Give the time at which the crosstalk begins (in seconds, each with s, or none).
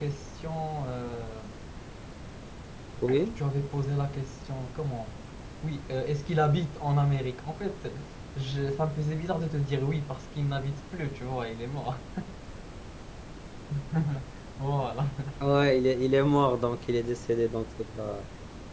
none